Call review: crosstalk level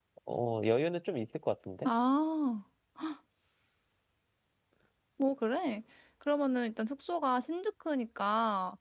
none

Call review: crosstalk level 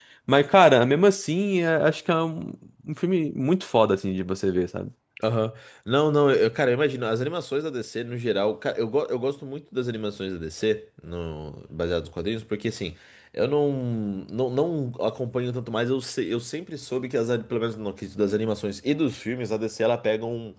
none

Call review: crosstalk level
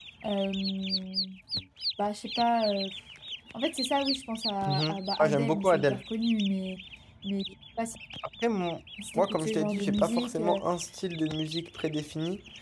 present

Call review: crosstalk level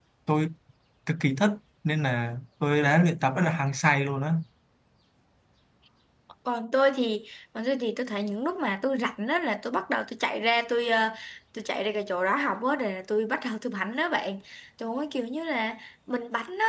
none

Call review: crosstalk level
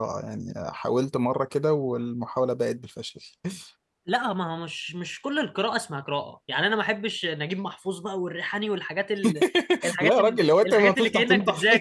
present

